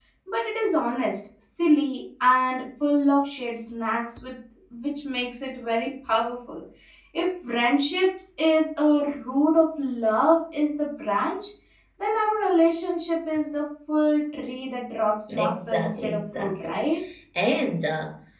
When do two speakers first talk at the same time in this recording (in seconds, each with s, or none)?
15.3 s